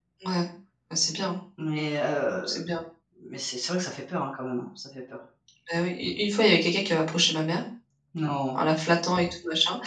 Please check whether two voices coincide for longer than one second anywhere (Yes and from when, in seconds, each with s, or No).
No